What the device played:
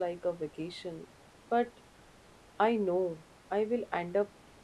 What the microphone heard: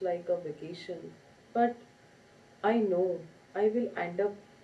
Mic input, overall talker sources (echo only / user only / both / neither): echo only